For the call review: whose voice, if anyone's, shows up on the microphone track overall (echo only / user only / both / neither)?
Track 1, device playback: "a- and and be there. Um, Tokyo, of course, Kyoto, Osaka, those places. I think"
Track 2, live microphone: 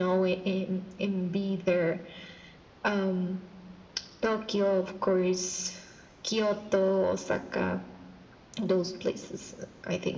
echo only